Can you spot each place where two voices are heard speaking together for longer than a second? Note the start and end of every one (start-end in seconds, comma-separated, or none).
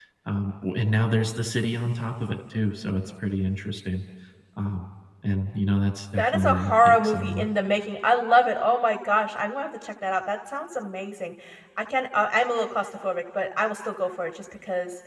6.2-7.5